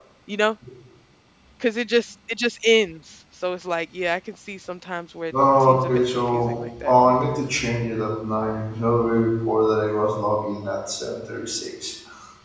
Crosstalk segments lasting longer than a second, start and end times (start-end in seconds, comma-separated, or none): 5.6-6.9